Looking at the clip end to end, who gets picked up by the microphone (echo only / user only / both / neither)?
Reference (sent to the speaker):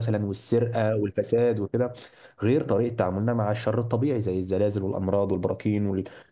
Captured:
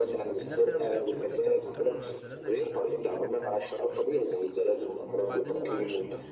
both